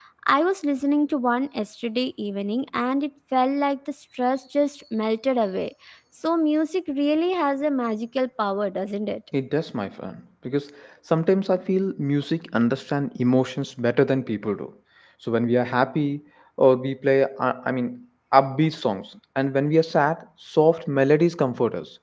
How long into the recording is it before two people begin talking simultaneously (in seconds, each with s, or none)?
none